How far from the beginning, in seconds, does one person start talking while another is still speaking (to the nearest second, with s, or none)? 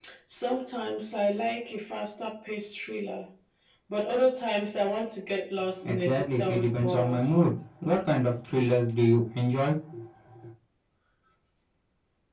6 s